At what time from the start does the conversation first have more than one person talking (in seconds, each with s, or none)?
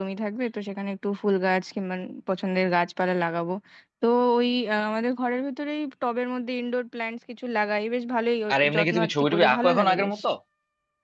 8.5 s